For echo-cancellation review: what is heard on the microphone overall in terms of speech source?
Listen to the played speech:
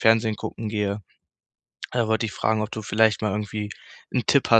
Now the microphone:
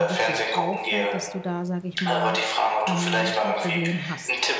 both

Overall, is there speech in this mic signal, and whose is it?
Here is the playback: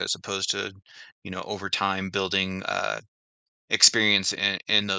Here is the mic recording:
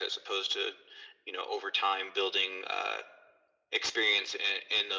echo only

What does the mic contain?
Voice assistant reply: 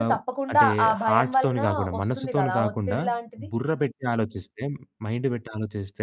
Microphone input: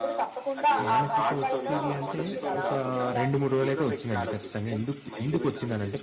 both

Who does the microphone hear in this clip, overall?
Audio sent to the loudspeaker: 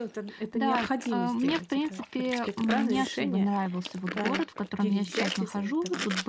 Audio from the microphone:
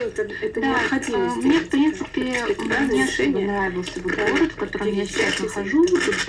echo only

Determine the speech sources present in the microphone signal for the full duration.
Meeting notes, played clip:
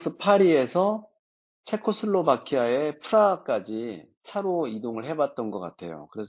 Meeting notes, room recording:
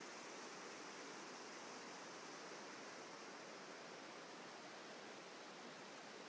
neither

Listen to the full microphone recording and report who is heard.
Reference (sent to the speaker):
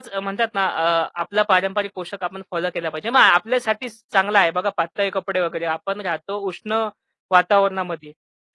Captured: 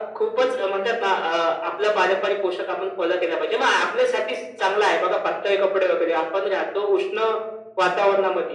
echo only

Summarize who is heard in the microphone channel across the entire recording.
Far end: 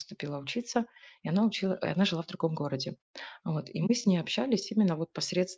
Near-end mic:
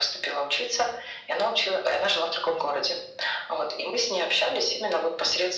echo only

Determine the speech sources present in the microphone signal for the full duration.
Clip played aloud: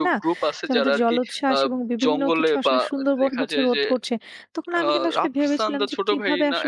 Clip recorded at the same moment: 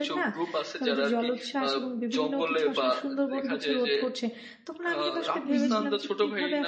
both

